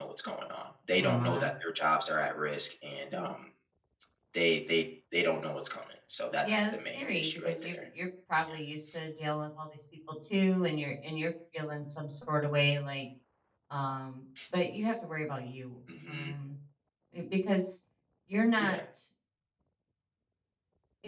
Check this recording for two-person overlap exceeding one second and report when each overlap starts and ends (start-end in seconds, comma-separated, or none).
6.4-7.8